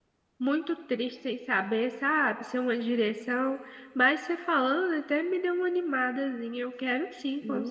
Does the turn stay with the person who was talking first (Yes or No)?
No